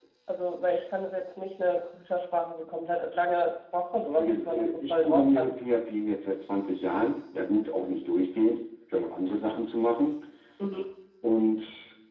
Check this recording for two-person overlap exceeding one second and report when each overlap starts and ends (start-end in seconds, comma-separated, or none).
4.1-5.5